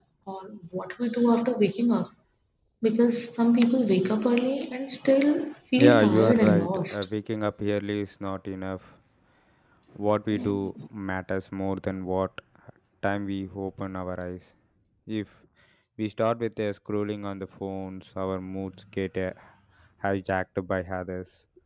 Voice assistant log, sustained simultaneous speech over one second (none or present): present